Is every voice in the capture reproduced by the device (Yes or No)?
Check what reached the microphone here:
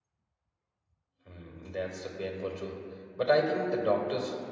No